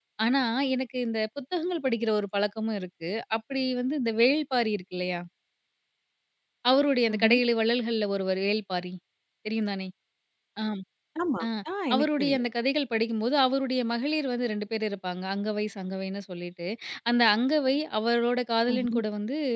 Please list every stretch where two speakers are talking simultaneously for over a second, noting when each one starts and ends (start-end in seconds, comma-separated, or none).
none